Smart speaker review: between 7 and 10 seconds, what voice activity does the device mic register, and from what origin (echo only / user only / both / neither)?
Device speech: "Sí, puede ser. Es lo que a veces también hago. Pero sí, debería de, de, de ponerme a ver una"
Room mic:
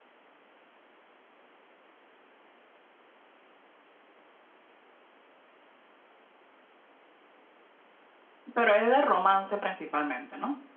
user only